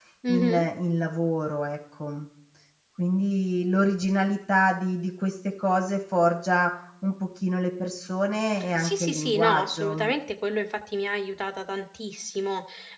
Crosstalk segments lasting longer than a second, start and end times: 8.8-10.1

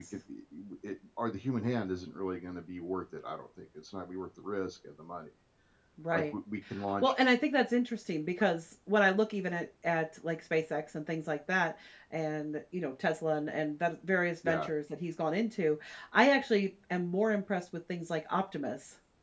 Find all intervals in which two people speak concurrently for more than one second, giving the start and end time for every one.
none

